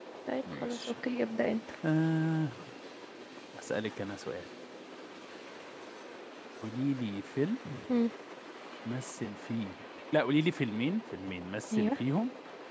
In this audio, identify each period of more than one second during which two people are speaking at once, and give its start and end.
none

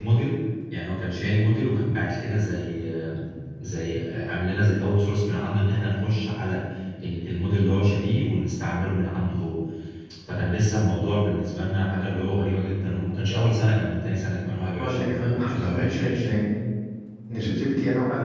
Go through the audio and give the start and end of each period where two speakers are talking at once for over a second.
14.8-16.2

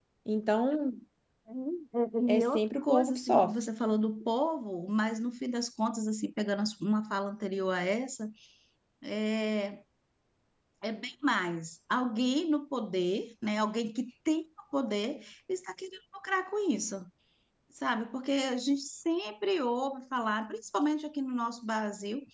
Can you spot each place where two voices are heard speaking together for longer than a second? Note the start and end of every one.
2.3-3.5

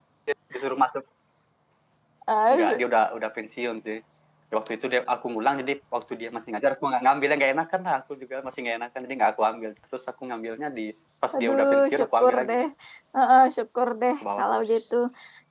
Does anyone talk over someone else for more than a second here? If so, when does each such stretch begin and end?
11.3-12.6

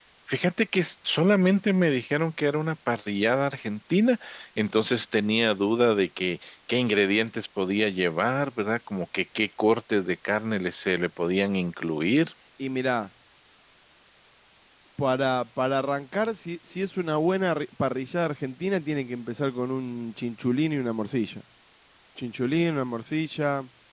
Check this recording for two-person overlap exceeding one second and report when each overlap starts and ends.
none

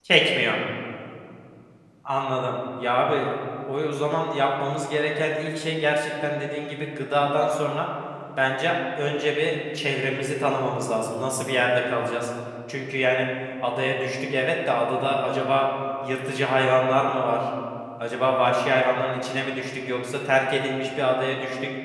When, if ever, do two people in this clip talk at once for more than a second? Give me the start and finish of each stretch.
none

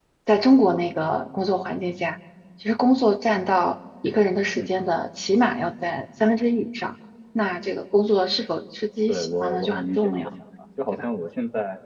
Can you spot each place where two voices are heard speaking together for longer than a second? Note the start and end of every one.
9.1-10.3

